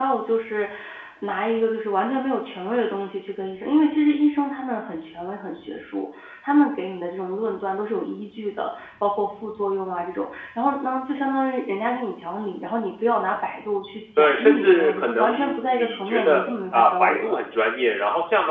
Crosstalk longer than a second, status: present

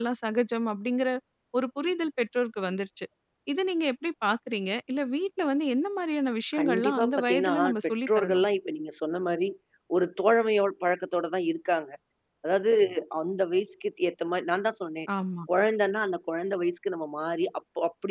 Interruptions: present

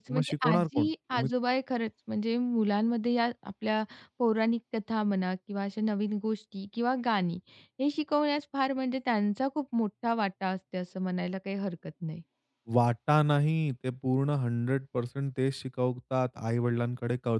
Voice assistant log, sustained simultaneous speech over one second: present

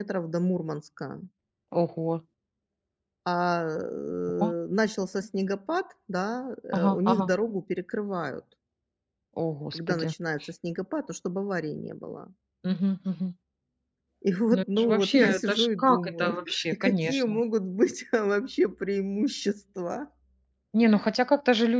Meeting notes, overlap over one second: present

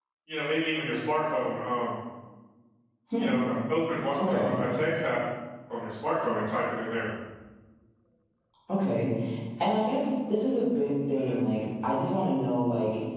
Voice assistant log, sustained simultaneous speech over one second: none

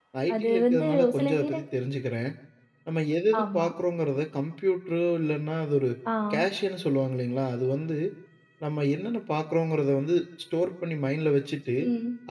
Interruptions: present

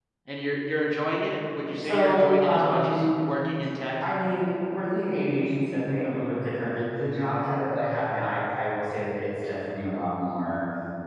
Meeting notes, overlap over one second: present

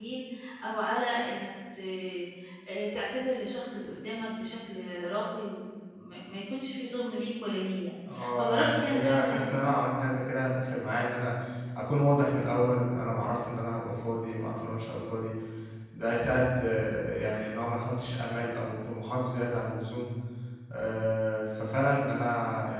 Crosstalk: present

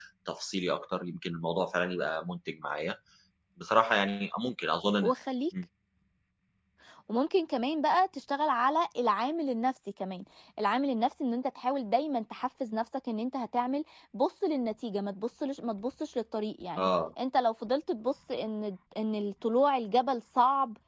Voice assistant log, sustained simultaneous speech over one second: none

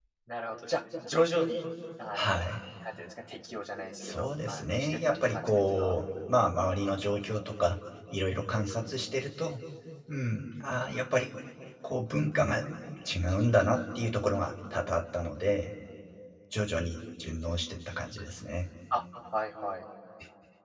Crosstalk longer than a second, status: present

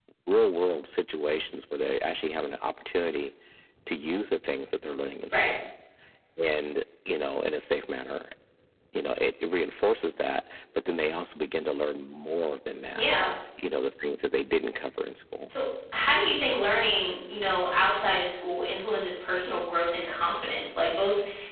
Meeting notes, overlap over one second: none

